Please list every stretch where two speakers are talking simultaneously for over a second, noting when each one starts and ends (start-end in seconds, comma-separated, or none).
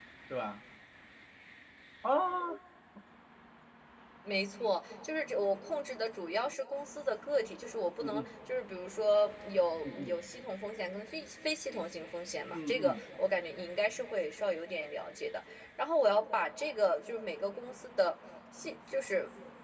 none